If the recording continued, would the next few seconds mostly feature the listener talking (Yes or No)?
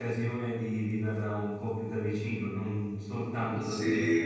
Yes